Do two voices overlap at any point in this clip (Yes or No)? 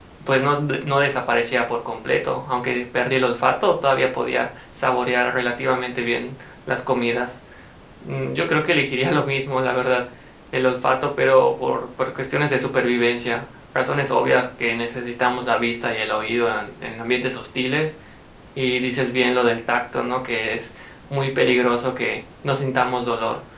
No